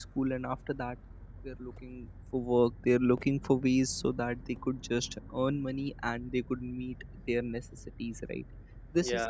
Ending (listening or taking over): listening